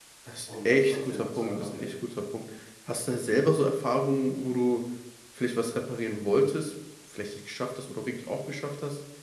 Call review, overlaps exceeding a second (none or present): present